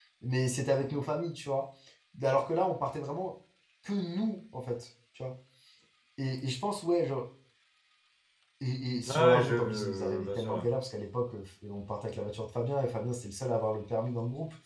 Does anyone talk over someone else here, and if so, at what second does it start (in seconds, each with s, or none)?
9.1 s